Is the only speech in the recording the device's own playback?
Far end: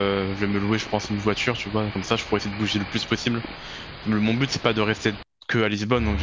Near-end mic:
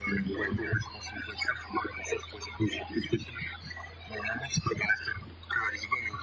No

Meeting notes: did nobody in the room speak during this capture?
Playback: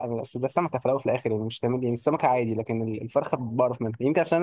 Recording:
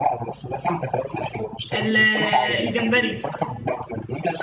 No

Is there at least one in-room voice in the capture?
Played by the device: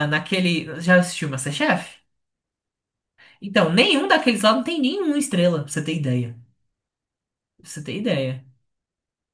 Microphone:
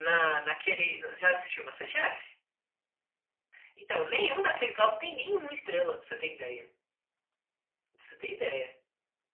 No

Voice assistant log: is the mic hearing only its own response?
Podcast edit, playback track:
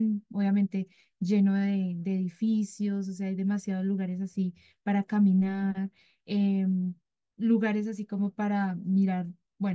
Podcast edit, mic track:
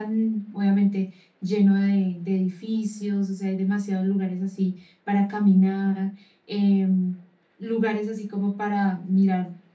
Yes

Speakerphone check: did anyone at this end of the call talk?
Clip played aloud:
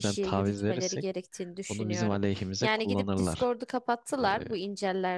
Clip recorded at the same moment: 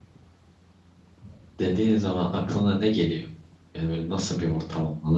Yes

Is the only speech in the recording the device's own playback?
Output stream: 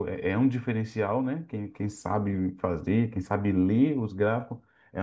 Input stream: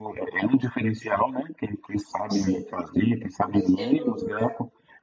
No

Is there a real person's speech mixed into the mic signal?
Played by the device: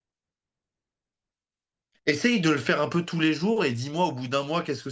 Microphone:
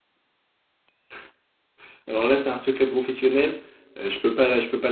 Yes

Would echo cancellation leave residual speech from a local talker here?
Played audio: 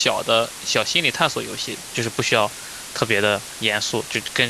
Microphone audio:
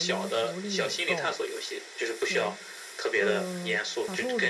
Yes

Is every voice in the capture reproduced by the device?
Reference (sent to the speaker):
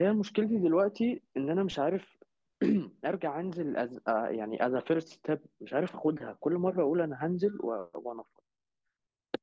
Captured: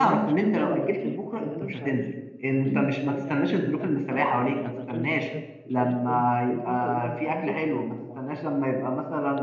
No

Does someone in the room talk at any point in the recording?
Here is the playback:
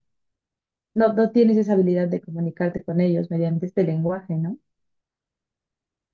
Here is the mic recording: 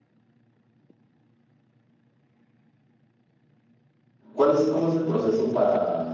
Yes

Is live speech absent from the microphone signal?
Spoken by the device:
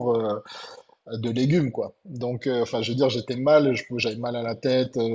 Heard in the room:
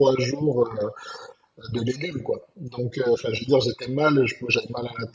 Yes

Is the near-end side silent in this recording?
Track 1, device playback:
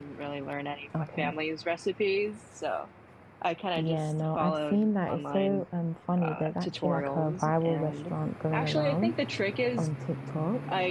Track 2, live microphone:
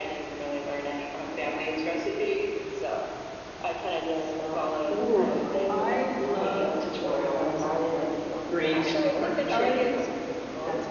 No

